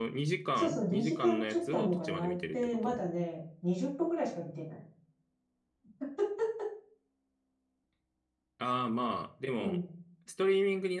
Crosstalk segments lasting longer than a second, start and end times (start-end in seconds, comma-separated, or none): 0.6-3.0